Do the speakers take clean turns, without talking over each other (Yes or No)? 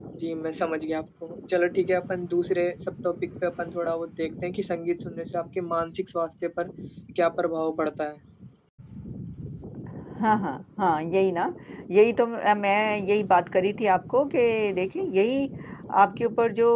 Yes